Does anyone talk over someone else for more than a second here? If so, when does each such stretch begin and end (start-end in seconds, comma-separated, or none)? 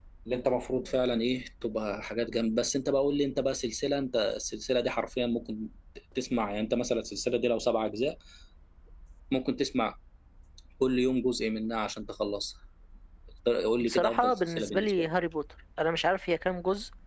13.8-15.1